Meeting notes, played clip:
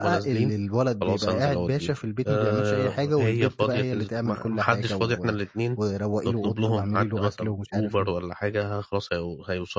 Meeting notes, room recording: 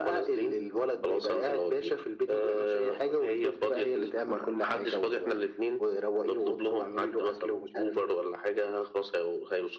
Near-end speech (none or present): none